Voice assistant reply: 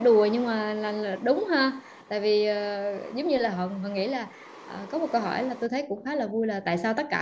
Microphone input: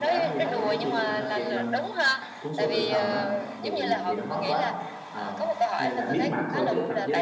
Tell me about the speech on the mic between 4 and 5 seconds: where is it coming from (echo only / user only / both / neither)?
both